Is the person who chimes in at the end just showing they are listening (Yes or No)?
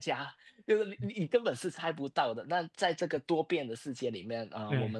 Yes